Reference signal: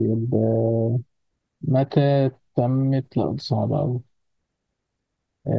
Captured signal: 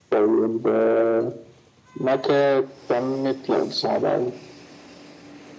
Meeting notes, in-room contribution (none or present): none